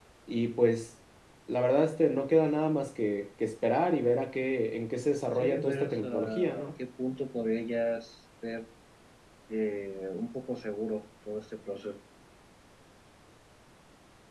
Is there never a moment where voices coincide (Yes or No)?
No